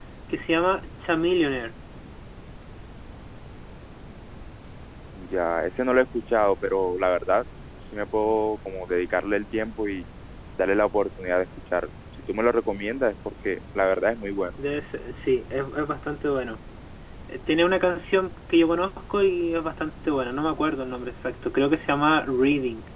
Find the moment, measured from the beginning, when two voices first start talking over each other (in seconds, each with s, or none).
none